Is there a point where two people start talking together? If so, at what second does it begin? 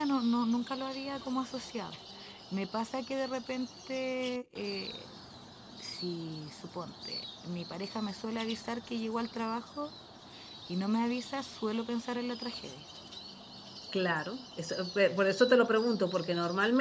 none

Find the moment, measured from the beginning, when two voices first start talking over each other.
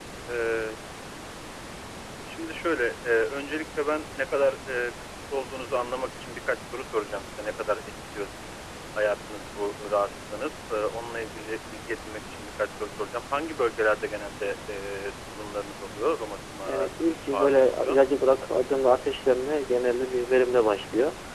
17 s

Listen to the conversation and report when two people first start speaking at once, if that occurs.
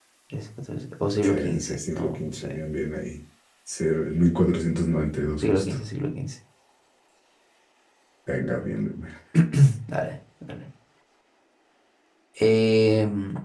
1 s

